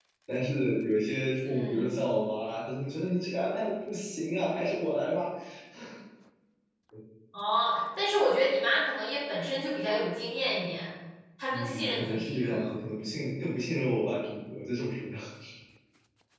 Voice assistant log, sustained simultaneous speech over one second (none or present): present